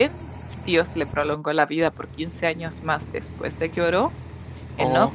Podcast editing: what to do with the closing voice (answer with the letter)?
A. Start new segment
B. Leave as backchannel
B